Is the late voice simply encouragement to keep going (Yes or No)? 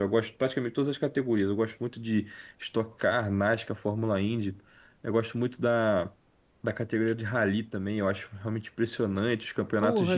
No